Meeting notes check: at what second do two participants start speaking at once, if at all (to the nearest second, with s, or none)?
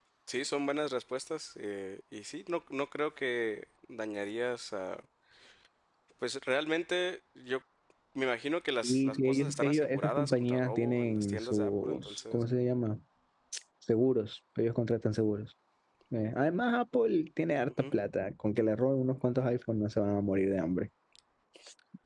9 s